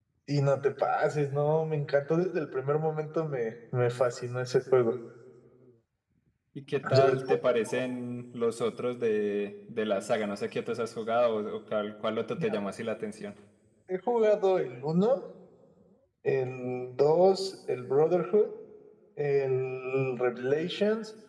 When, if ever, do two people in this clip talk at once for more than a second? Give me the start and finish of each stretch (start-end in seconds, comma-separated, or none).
none